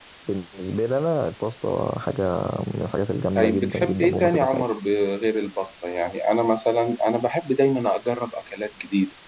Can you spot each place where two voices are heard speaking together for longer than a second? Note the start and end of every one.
3.4-4.6

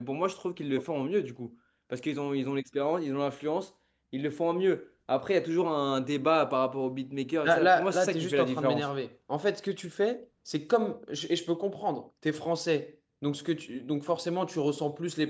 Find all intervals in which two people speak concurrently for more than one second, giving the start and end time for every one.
7.5-8.9

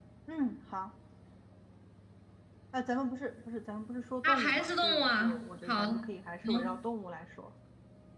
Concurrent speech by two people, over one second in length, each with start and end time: 4.2-5.8

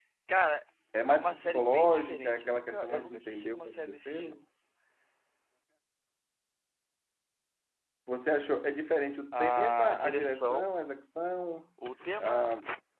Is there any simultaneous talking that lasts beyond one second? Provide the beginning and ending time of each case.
1.1-4.3, 9.3-10.7

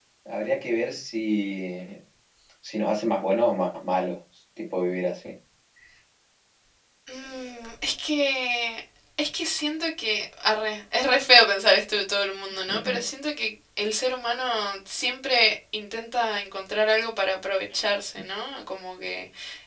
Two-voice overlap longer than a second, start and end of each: none

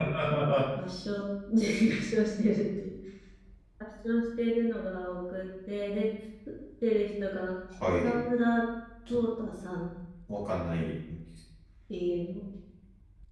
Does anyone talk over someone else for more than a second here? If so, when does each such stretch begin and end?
none

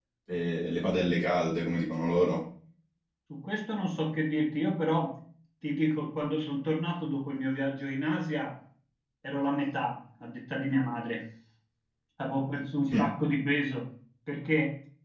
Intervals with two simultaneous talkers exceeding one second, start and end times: none

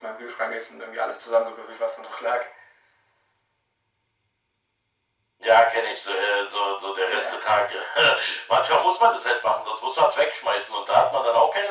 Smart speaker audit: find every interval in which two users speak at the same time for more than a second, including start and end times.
none

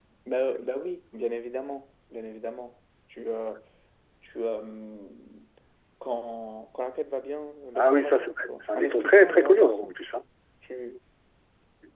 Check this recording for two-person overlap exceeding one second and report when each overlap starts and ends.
7.8-10.0

